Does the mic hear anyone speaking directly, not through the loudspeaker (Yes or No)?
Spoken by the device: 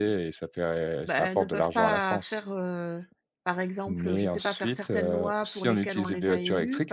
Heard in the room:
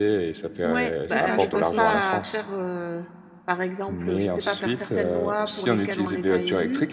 Yes